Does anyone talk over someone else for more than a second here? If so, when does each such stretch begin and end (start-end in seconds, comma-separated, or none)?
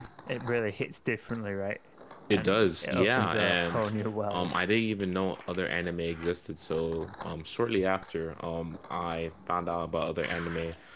2.3-3.9